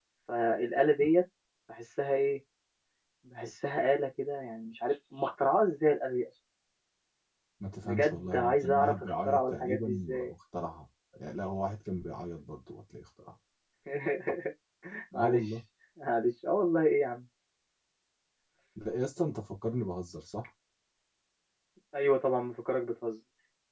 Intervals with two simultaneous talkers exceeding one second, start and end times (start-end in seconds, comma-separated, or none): 7.8-10.3